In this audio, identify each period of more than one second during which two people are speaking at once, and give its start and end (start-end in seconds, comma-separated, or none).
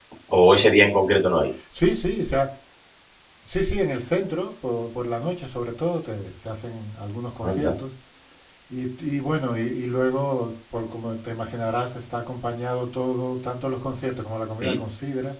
none